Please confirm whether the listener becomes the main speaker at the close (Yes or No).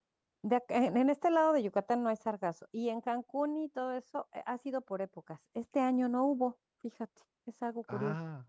No